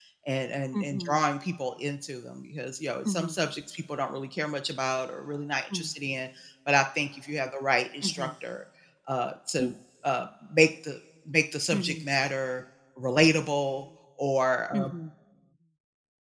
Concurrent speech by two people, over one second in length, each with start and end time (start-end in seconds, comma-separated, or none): none